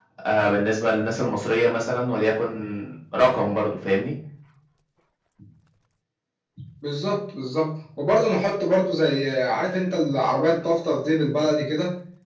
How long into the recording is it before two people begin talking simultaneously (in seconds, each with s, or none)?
none